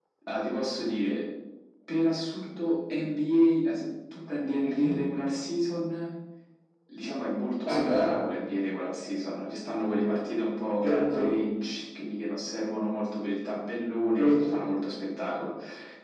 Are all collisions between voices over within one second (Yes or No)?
Yes